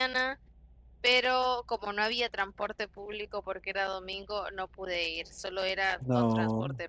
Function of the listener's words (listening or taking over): listening